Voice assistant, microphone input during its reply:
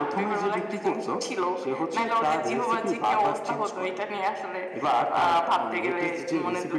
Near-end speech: none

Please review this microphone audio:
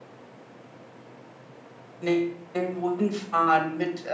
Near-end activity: present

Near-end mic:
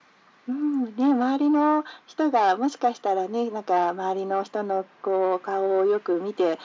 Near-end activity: none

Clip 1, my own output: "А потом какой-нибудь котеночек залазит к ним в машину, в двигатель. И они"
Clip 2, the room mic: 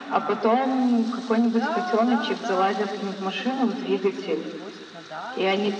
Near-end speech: present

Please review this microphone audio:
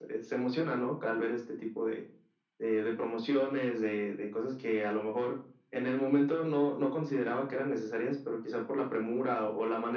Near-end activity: none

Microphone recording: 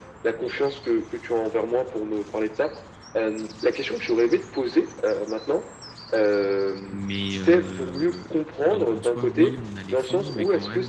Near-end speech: present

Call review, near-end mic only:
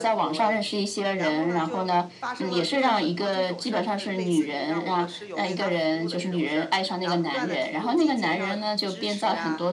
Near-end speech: present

